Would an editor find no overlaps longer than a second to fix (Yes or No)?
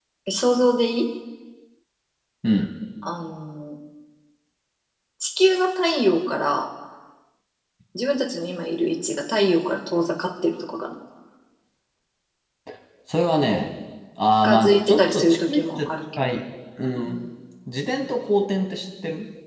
No